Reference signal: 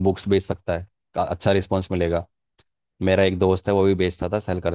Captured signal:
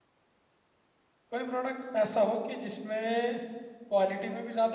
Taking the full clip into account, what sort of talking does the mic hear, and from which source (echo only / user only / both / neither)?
user only